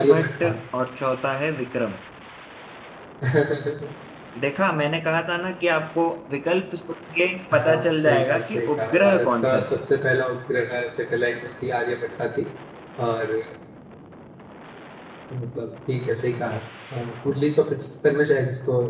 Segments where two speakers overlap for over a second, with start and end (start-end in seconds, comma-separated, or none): 7.5-9.8